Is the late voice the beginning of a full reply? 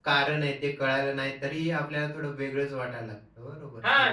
Yes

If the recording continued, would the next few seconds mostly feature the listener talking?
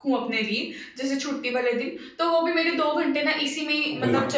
No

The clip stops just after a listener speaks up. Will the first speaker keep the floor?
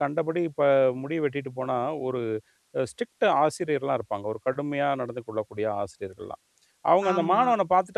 Yes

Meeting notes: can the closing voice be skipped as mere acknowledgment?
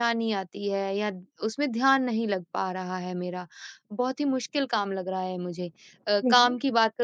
Yes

